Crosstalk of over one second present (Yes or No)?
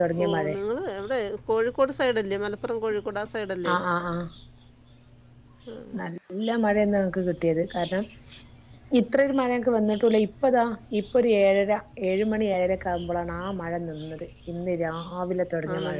No